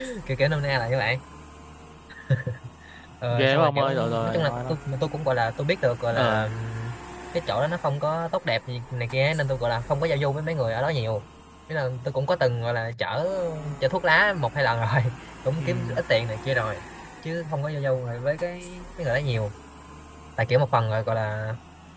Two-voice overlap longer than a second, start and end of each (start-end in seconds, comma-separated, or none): 3.3-4.8